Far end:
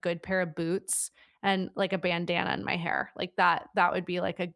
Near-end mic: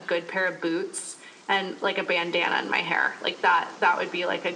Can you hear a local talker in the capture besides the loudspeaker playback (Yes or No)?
No